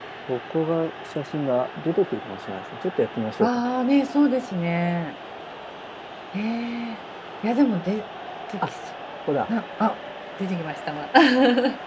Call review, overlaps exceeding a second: none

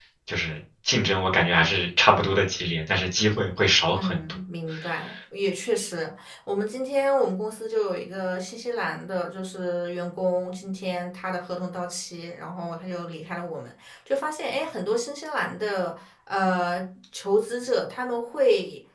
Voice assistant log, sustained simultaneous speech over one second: none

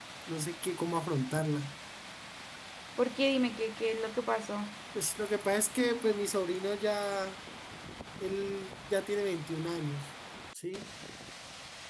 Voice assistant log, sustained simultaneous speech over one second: none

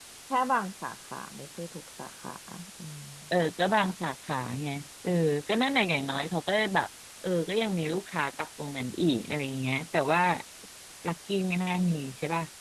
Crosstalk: none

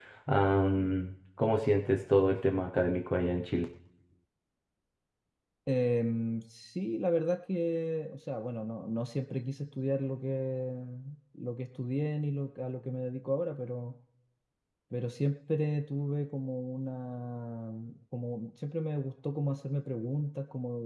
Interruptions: none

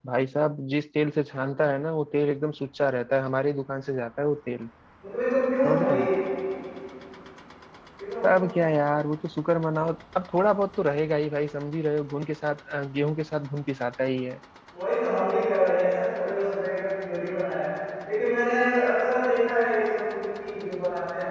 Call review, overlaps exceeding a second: none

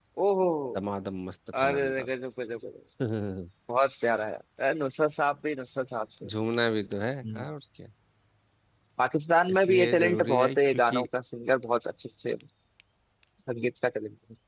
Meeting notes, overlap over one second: present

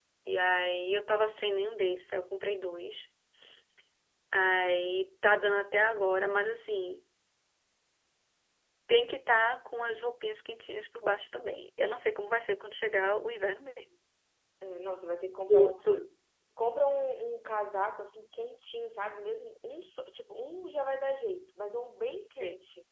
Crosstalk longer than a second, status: none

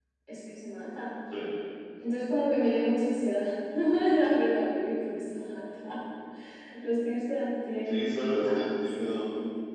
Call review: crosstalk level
present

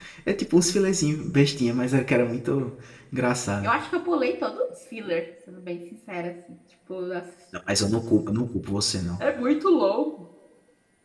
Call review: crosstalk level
none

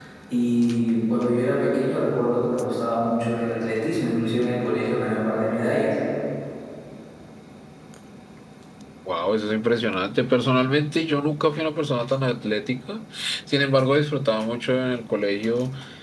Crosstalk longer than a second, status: none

